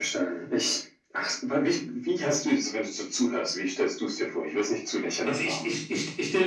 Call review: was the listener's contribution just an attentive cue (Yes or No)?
No